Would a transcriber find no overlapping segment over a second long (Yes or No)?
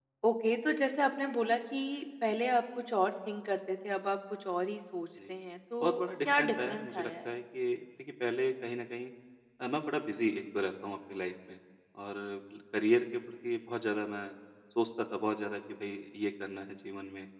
No